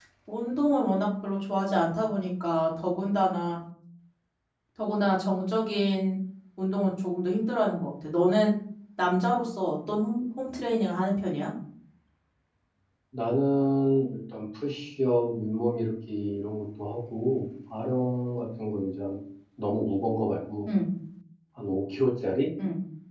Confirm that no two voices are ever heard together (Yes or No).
Yes